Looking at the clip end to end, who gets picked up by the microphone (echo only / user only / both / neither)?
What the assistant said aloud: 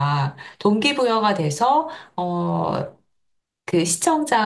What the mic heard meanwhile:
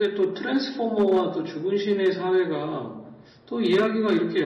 user only